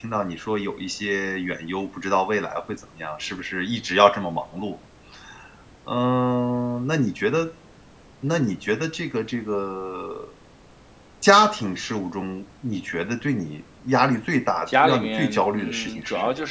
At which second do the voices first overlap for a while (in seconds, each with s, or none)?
14.7 s